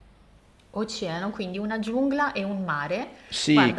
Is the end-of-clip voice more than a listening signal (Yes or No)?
Yes